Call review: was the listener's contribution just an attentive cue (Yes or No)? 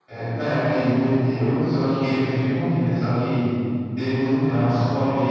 Yes